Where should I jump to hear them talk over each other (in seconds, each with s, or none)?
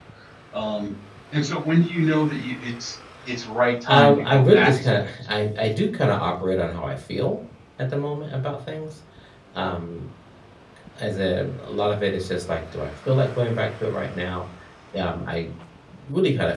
3.9 s